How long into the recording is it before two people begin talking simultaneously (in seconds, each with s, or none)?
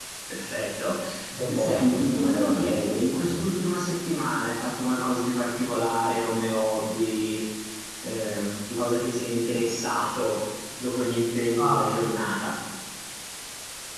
1.4 s